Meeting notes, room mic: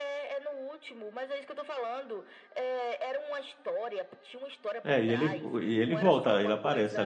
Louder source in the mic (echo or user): user